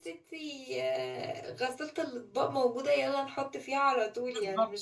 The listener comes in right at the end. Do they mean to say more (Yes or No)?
Yes